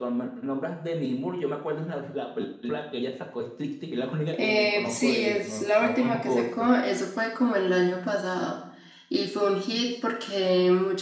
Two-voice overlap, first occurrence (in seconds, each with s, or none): 4.3 s